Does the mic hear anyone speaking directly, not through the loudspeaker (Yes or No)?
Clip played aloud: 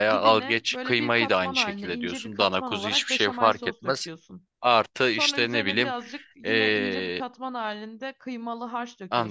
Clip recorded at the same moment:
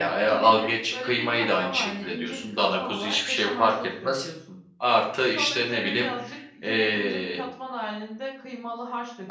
No